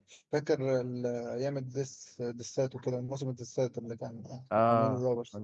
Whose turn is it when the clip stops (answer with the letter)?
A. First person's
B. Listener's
B